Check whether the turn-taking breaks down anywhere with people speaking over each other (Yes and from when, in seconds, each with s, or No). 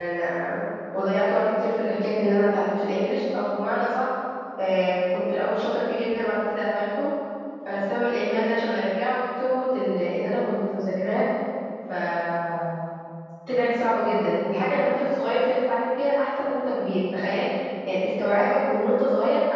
No